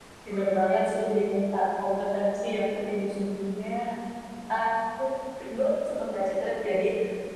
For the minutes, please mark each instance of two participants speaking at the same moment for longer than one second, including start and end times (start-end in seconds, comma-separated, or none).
none